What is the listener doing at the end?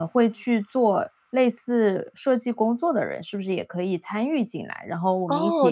taking over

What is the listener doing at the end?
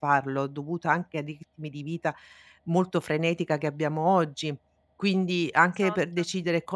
listening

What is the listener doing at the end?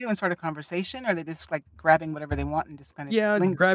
taking over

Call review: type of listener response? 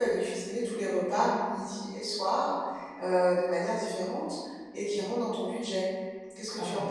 taking over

